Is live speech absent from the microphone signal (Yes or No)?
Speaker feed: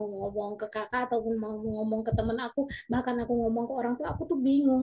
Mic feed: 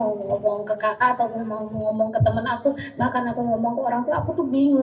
Yes